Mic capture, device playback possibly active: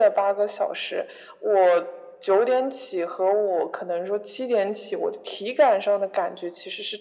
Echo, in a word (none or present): present